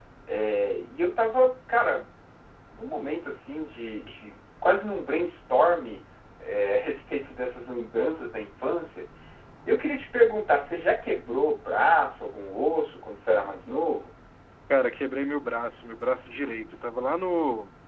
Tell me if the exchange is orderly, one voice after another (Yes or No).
Yes